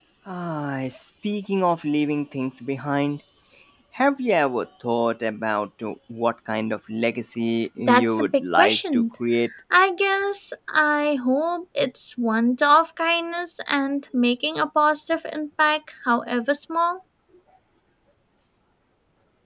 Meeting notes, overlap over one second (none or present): present